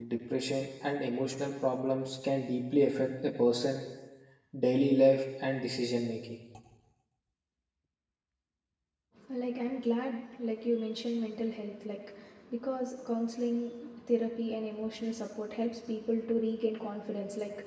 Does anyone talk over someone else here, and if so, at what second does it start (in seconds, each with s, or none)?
none